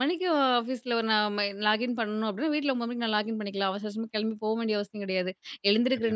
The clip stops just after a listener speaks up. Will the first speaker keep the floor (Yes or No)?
Yes